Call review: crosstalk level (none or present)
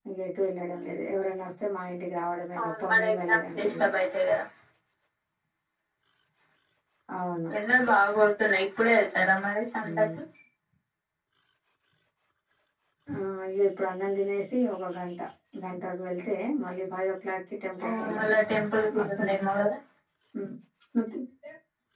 present